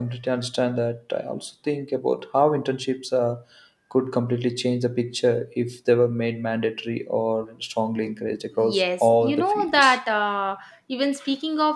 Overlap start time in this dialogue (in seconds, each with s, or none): 8.5 s